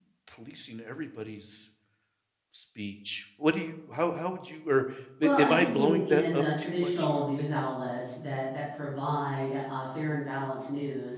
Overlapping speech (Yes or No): Yes